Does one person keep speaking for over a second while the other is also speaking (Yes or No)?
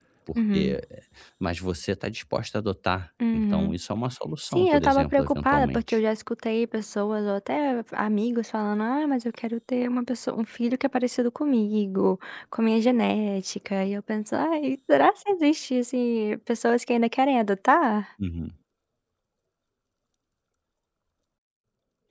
Yes